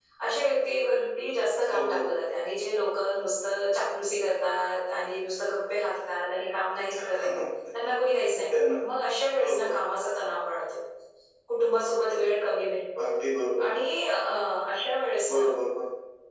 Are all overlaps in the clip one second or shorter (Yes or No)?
Yes